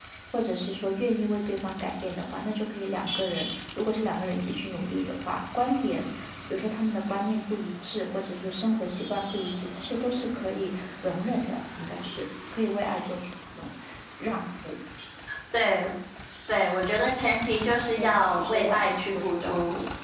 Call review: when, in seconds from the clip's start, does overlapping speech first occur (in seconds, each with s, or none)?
18.0 s